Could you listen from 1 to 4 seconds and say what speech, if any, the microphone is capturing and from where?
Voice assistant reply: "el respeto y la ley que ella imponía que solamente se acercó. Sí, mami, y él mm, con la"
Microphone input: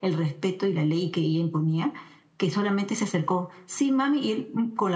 echo only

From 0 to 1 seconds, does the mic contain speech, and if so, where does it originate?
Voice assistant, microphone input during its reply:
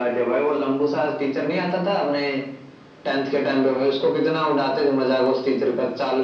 echo only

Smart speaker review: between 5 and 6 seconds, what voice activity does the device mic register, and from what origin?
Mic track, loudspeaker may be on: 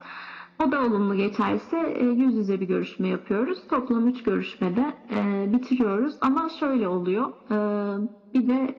echo only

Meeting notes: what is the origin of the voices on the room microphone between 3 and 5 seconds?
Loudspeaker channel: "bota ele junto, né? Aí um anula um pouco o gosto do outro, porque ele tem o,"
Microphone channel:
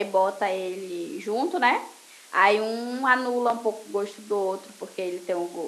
echo only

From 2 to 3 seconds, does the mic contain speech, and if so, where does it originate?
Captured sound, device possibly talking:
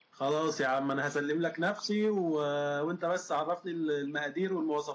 echo only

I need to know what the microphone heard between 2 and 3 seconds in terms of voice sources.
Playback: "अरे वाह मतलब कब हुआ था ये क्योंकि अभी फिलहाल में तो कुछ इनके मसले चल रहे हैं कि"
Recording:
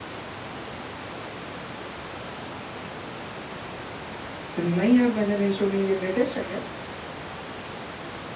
neither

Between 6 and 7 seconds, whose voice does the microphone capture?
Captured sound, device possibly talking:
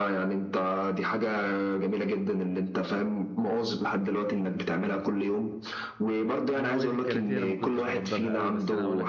both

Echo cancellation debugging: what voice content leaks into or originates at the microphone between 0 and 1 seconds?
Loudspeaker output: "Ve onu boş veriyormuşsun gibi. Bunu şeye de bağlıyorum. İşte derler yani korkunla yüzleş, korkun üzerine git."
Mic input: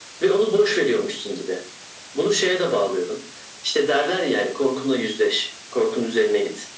echo only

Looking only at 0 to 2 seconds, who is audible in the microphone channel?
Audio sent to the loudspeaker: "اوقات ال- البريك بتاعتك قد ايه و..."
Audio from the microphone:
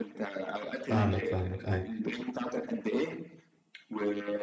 both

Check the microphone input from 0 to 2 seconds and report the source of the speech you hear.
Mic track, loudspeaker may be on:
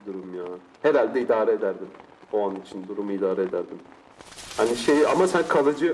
echo only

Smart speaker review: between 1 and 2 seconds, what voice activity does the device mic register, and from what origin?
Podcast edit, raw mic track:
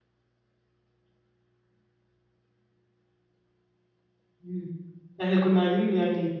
neither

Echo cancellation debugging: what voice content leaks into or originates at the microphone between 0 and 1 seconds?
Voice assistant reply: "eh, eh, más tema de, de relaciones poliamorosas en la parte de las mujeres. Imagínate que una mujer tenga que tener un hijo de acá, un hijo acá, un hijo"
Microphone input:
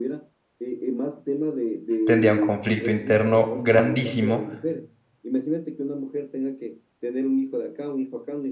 echo only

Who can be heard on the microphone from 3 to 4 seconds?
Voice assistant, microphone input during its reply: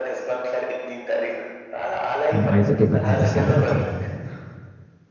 both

